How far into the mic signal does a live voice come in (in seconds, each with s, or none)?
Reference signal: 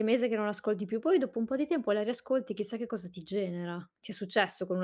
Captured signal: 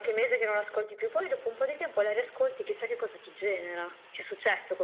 none